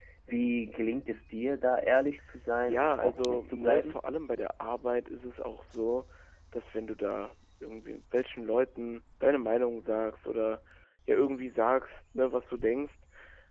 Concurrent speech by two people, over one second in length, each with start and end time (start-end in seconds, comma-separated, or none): 2.6-4.0